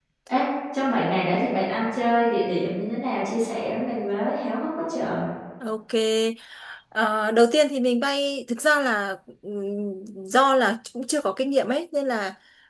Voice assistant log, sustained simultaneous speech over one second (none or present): none